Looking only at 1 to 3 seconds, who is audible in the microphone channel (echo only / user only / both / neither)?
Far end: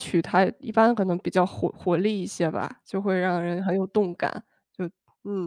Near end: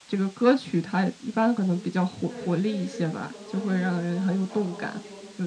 both